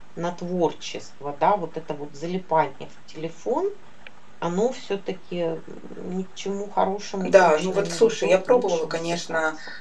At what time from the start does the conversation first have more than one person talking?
7.2 s

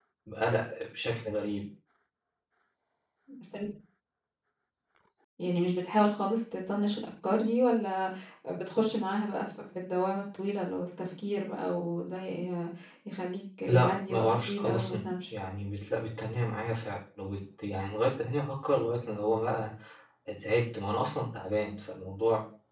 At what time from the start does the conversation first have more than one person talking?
13.7 s

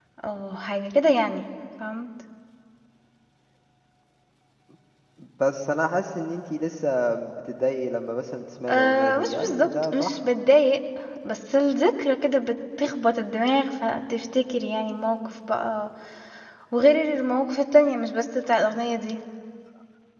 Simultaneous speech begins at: 8.7 s

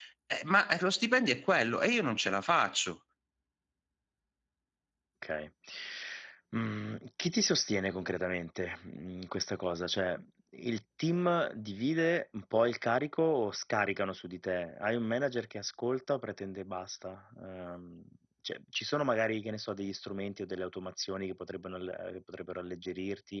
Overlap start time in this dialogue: none

